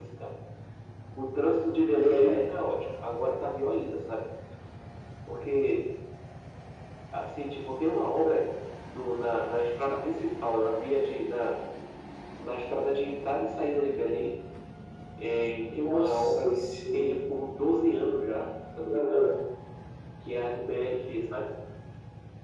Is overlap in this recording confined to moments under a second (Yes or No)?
No